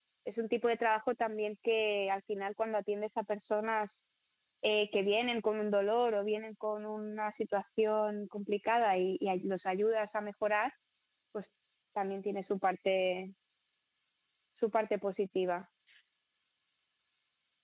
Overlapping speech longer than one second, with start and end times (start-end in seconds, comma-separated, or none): none